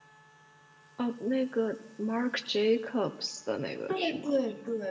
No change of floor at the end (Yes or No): No